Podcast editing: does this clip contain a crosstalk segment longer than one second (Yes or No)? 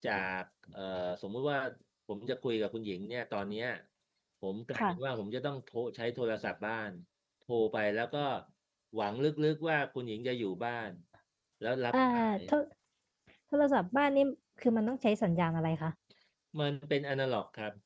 No